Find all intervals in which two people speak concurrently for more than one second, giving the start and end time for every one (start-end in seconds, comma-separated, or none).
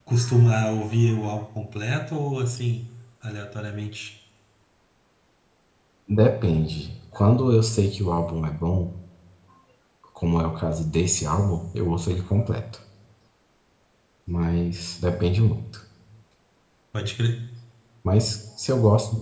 none